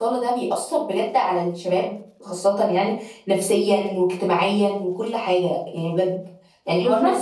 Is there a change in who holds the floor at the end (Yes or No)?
No